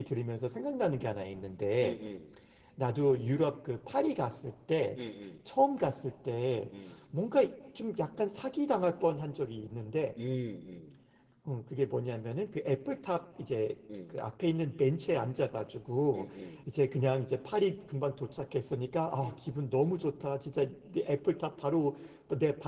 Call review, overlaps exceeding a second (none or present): none